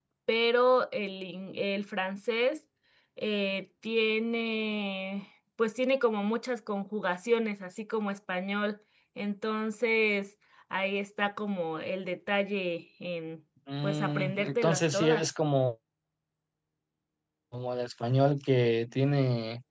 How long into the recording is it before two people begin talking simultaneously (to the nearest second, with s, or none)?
14 s